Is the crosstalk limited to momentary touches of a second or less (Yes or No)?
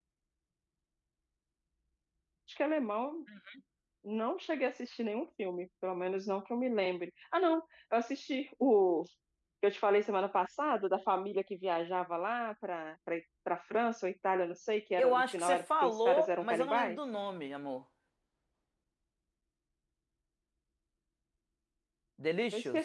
No